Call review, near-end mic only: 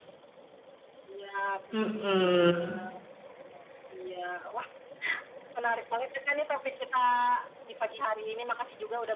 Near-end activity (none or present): present